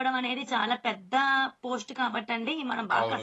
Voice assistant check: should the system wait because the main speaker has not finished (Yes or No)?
No